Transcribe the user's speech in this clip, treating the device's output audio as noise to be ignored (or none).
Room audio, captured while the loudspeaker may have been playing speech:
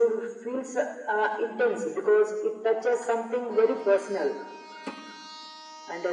none